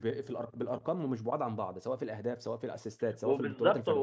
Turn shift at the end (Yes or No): Yes